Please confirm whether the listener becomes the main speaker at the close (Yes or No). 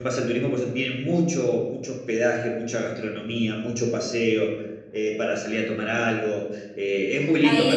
Yes